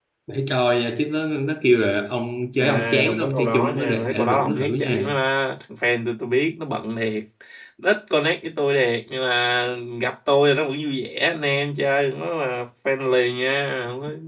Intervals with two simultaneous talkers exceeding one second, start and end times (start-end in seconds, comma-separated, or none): 2.6-5.1